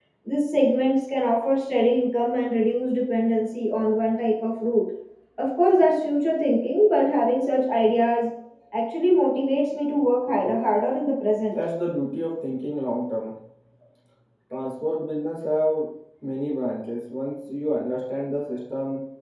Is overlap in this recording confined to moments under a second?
Yes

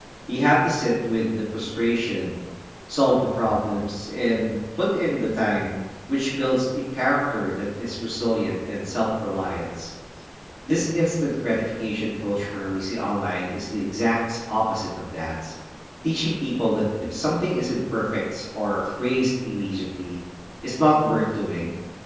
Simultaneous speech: No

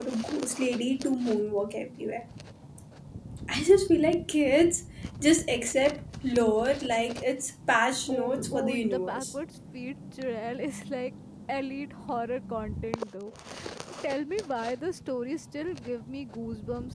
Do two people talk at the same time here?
Yes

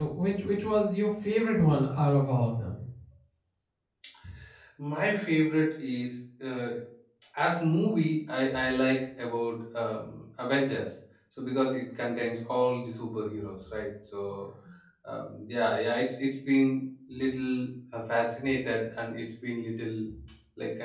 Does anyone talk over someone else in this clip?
No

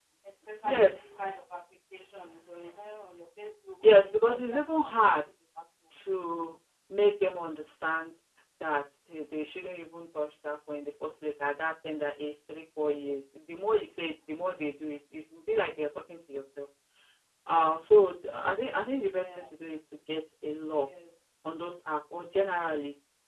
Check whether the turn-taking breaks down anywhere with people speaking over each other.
Yes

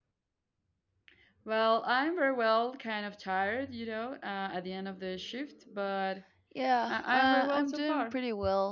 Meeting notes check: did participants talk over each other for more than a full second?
Yes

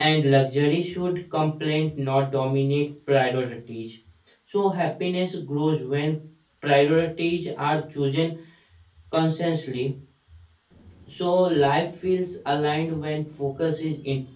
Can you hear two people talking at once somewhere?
No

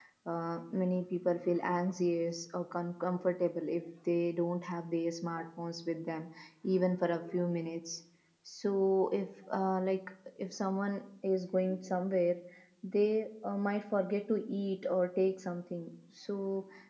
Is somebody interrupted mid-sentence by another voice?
No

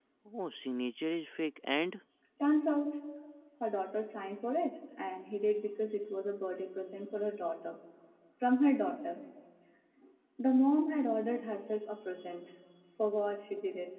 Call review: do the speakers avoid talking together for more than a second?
Yes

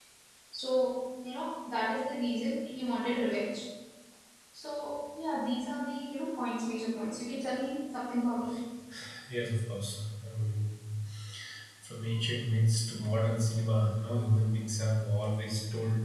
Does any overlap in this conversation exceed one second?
No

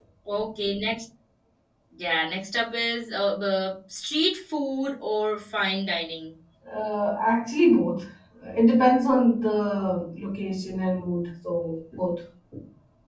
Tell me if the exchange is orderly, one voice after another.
Yes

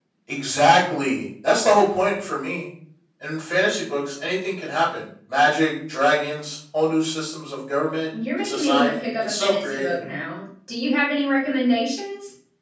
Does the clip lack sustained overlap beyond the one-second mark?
No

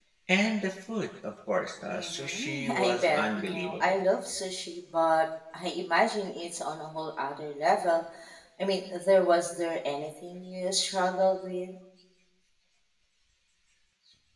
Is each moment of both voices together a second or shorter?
No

